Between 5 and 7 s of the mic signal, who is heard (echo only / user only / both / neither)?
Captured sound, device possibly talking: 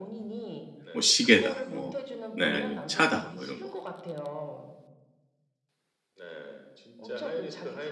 echo only